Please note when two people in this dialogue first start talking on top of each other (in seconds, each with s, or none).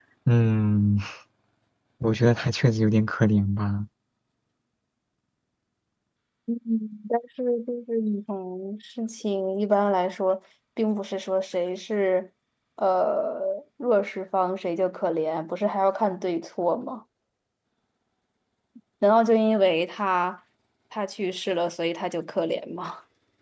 none